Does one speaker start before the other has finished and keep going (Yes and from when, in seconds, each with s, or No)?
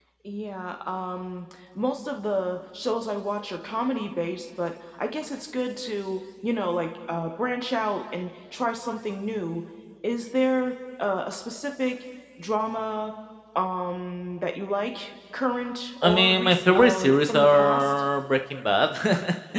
Yes, from 16.0 s